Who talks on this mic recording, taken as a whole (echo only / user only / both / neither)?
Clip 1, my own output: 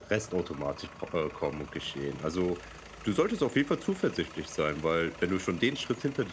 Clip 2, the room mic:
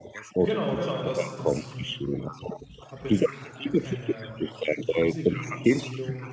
both